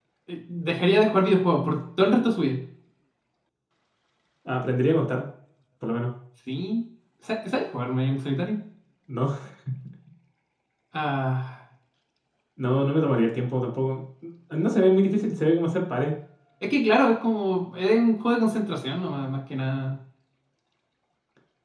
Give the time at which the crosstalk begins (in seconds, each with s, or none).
none